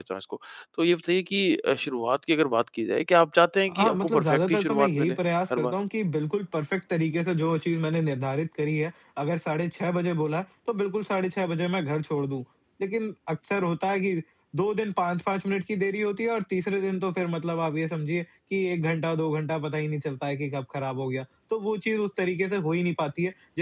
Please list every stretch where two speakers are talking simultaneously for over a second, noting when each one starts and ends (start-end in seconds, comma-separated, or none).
3.7-5.1